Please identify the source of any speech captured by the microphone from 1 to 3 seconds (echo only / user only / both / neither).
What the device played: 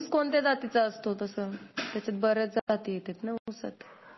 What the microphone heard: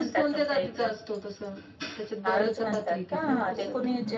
both